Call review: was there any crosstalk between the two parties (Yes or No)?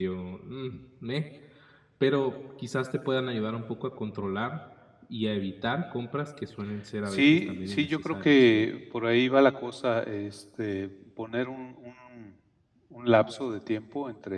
Yes